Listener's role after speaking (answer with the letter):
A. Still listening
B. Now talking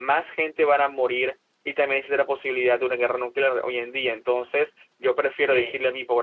A